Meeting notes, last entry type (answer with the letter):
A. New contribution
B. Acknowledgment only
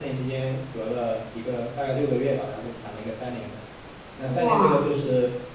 B